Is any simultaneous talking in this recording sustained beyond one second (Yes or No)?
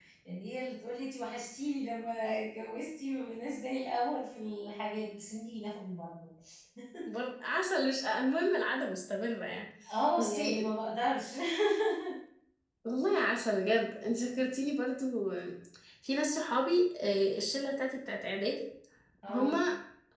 No